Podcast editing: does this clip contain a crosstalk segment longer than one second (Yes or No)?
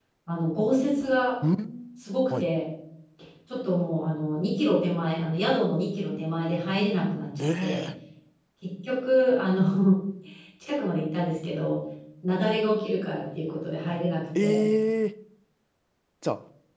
No